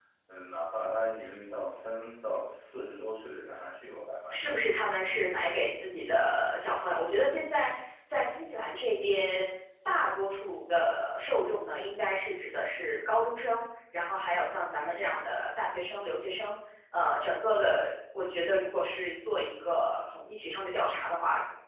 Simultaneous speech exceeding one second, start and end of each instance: none

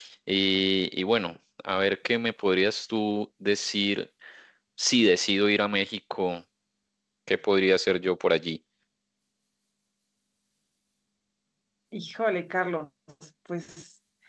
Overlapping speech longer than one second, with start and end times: none

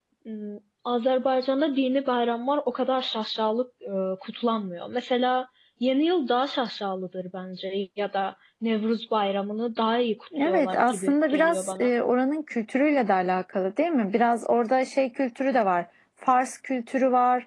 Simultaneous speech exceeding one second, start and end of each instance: 10.4-11.9

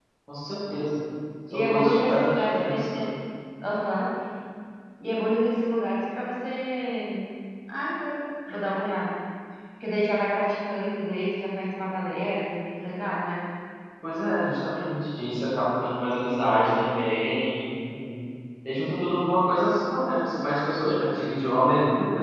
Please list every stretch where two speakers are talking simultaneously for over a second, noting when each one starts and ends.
1.5-3.1

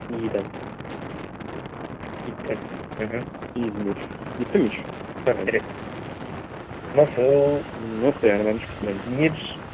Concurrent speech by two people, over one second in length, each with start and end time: none

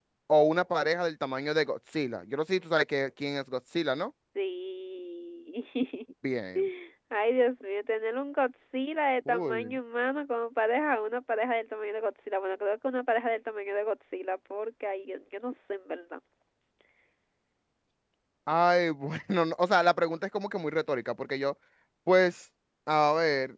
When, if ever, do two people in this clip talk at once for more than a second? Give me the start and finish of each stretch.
none

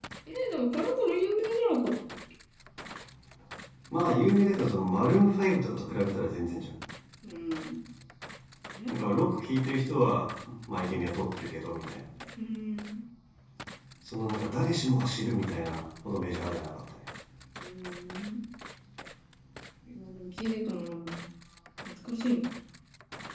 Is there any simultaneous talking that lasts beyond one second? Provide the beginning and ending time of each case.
none

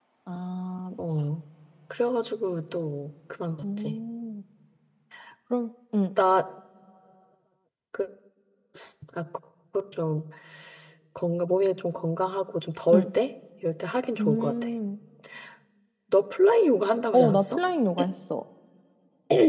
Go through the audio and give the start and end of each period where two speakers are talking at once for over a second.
none

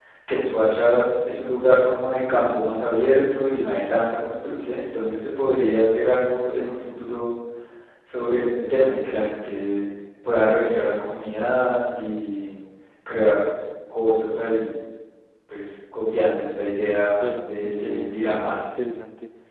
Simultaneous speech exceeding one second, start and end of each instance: 17.2-18.8

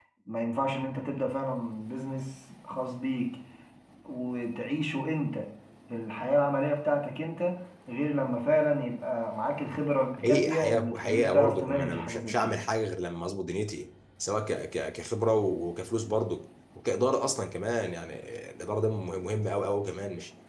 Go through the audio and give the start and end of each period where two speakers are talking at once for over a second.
10.2-12.6

